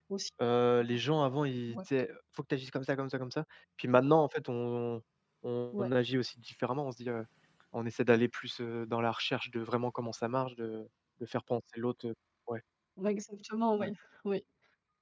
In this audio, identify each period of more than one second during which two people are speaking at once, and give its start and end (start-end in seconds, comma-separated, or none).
none